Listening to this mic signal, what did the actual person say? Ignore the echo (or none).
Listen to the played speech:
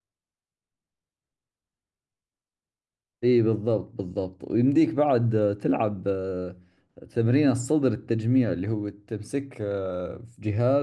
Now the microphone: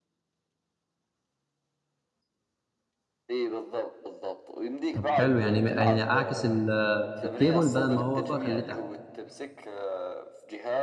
طب حلو يعني يعني اعكس ال- الكيبل بدل ما هو فوق اخليه تحت